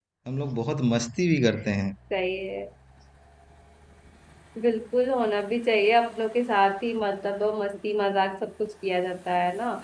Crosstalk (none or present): none